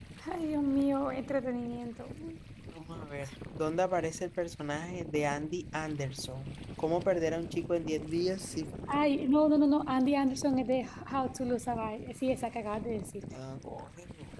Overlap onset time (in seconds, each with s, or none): none